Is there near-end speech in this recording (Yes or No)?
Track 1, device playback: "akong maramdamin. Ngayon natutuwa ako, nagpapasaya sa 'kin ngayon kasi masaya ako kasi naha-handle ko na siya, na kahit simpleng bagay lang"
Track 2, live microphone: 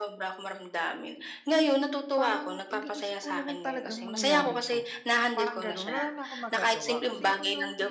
Yes